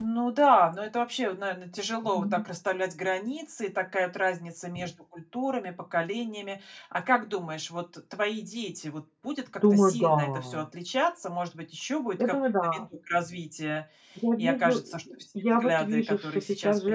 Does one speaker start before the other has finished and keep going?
Yes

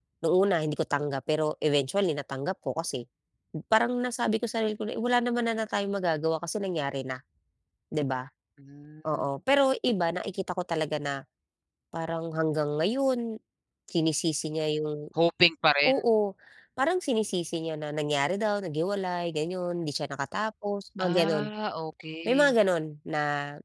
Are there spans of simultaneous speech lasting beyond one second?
No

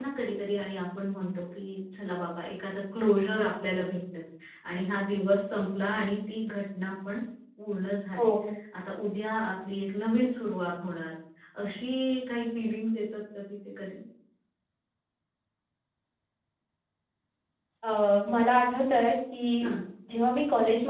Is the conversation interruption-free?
Yes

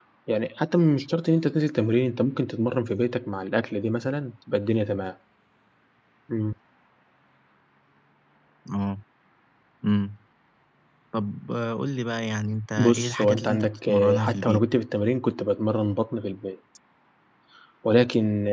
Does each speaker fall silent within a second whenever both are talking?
No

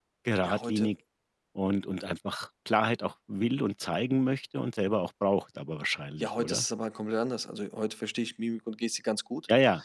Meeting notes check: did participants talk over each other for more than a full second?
No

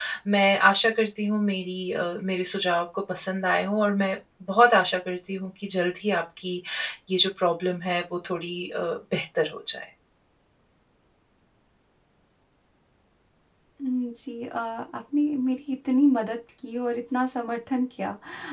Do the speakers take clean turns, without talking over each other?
Yes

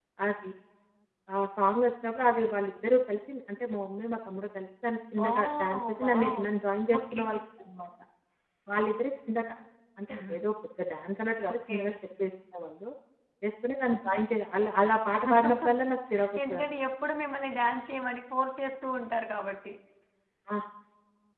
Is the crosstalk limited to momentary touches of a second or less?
No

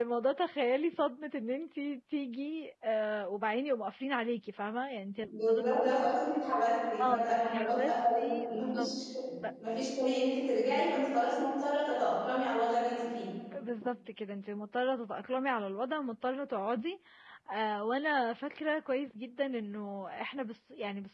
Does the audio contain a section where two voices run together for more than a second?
Yes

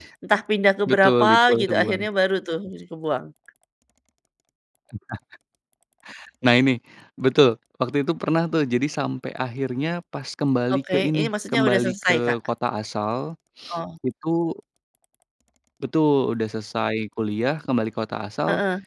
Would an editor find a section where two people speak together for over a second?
Yes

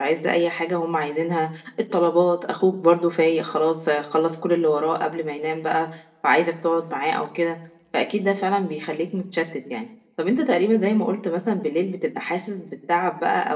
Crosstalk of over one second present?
No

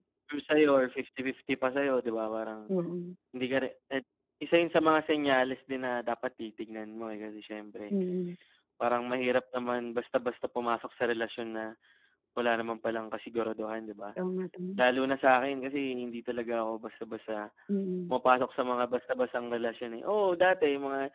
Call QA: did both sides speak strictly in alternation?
Yes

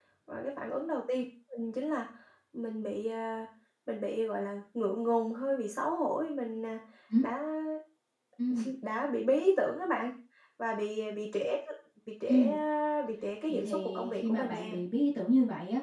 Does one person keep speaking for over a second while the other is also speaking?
Yes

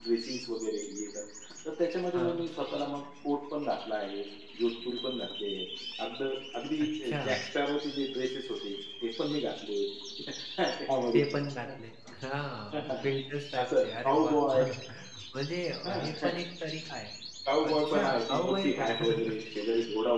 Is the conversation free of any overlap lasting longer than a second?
No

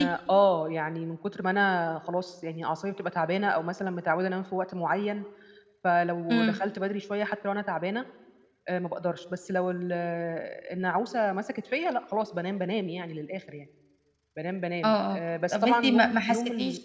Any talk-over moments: Yes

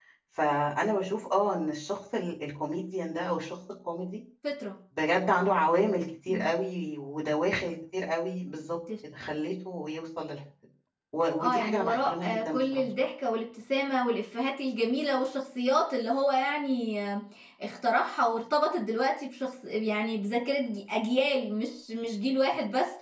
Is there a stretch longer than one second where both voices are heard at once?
Yes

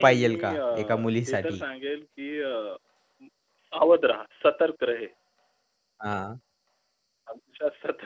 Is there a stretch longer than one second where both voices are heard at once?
Yes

